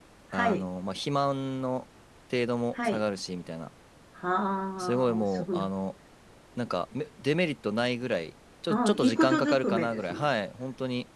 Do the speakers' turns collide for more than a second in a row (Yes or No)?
Yes